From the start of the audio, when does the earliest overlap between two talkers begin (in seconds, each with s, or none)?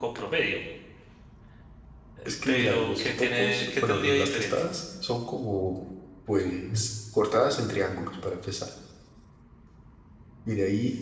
2.5 s